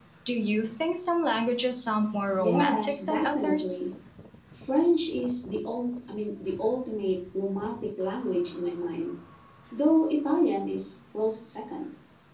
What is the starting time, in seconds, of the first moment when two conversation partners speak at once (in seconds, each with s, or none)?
2.4 s